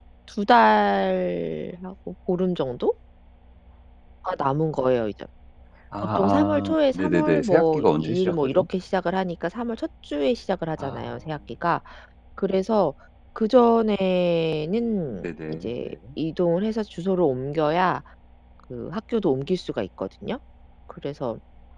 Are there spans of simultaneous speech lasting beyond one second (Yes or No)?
Yes